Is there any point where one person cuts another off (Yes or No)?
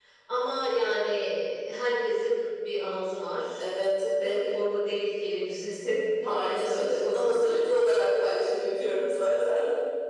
Yes